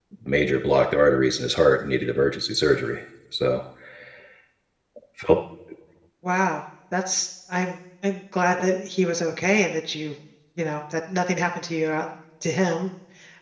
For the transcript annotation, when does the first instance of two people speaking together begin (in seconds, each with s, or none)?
none